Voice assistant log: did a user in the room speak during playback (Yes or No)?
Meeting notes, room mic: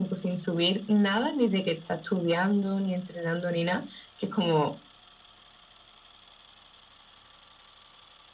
No